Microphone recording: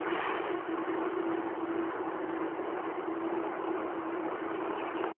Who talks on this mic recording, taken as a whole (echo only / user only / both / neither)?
neither